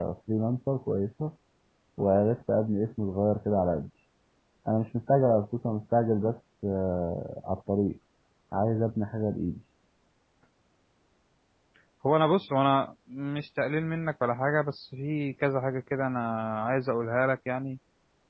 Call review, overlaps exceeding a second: none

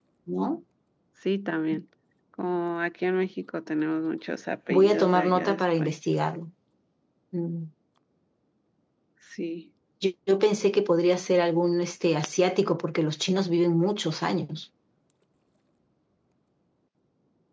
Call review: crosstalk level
present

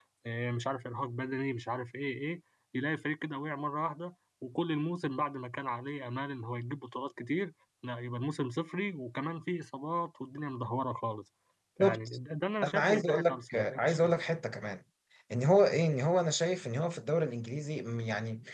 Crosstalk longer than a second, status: present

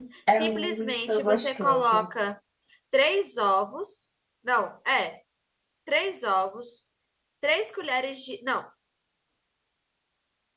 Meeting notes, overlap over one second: present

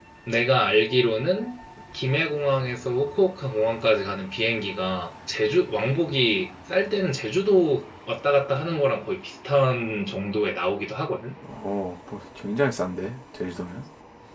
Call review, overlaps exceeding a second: none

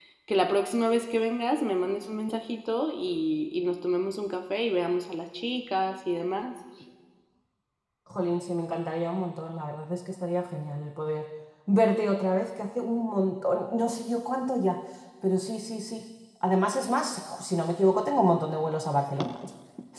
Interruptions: none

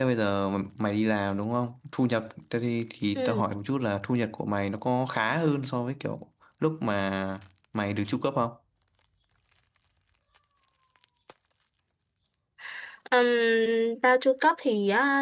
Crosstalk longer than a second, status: none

